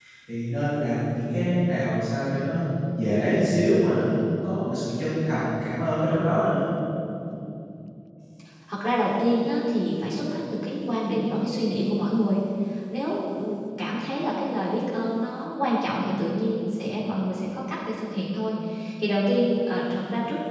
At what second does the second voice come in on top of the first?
none

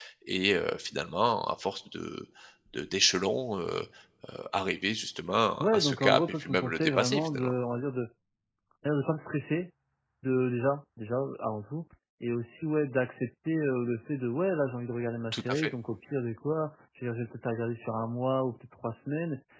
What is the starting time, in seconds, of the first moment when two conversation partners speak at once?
5.6 s

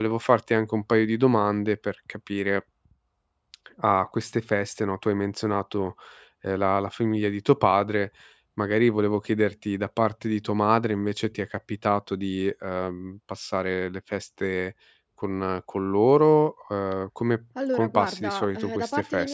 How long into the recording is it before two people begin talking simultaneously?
17.6 s

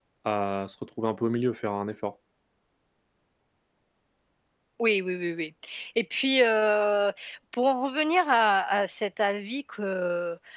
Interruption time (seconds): none

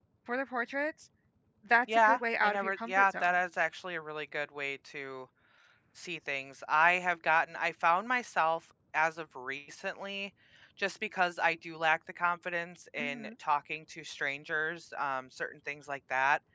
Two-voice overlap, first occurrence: 2.0 s

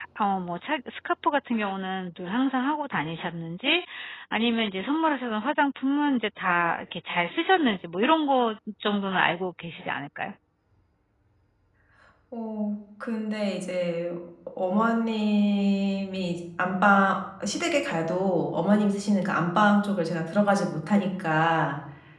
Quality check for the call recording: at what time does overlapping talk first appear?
none

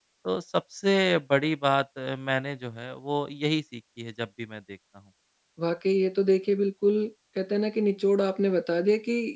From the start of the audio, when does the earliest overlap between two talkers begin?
none

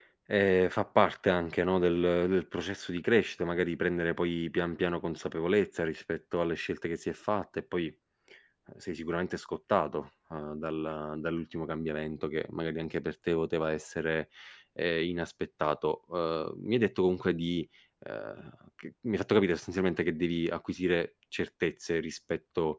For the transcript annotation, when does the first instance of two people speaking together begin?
none

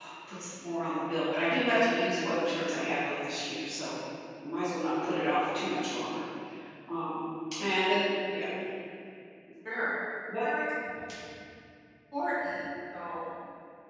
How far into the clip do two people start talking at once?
none

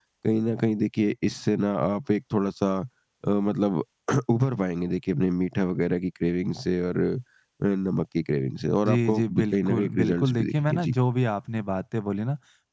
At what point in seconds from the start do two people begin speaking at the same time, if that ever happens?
8.8 s

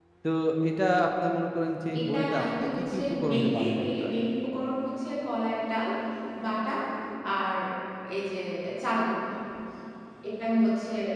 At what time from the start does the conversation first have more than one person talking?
1.9 s

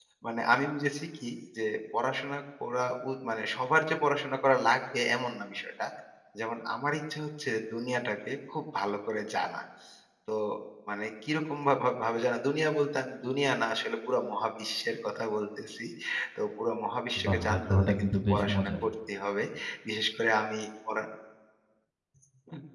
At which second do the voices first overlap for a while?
17.2 s

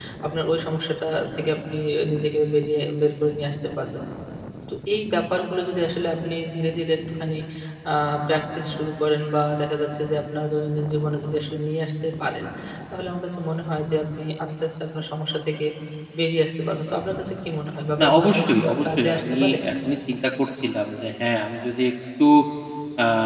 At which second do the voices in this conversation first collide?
18.0 s

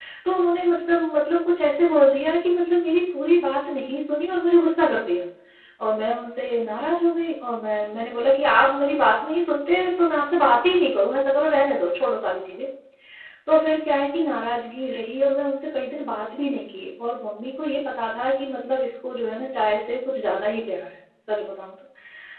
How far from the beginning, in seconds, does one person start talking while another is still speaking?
none

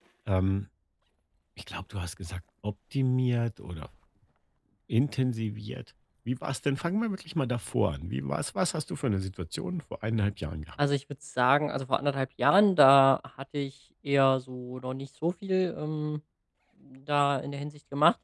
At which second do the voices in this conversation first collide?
none

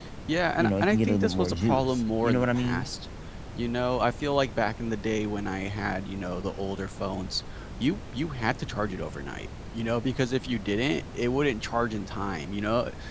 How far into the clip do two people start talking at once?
0.6 s

